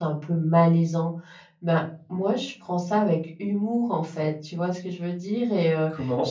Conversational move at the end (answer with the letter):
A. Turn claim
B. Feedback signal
B